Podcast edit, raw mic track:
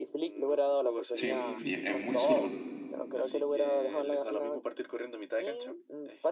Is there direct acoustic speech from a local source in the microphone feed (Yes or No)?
Yes